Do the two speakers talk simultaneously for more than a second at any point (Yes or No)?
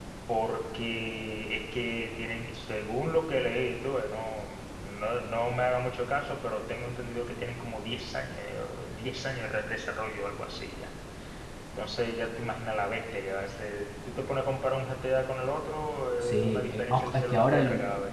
Yes